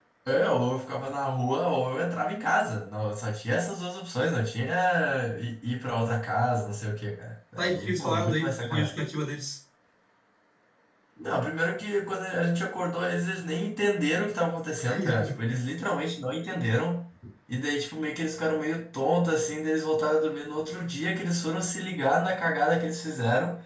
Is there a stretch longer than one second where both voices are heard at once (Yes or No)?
Yes